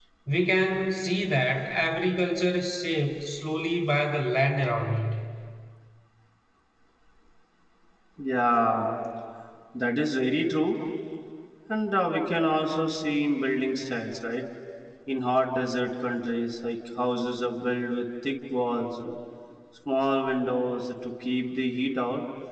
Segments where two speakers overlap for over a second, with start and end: none

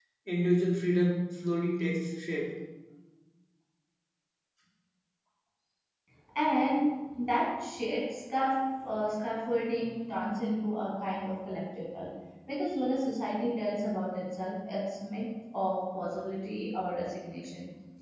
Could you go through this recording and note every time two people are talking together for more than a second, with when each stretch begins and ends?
none

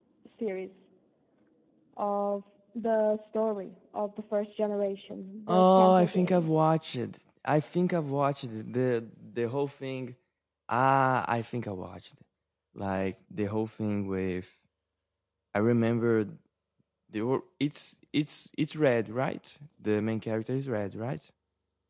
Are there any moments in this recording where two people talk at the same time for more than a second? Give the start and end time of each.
5.5-6.7

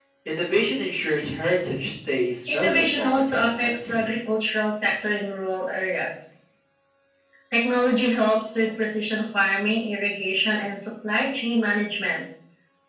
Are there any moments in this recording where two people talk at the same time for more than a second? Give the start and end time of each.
2.5-4.1

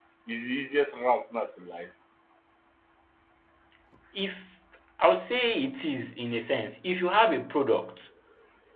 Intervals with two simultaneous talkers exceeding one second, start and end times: none

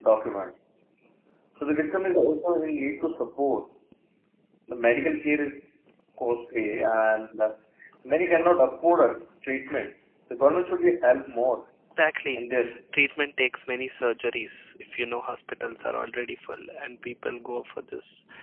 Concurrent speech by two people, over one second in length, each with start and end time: none

